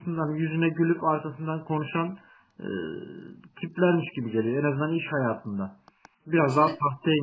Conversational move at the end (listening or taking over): listening